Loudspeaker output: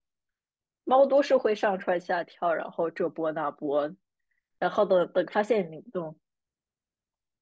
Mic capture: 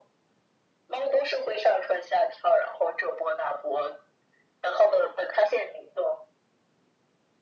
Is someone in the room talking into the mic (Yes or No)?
No